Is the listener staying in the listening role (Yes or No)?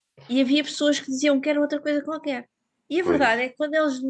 Yes